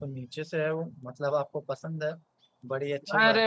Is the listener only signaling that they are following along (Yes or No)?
No